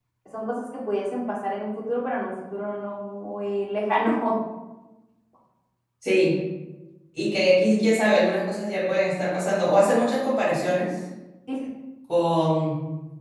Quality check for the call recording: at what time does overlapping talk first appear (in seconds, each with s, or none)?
none